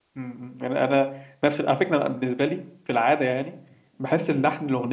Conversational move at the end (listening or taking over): listening